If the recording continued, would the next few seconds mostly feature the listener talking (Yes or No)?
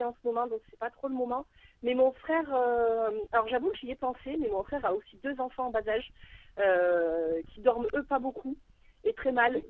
No